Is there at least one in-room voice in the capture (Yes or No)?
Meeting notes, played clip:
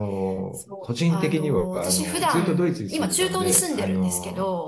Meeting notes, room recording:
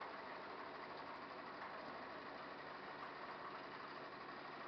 No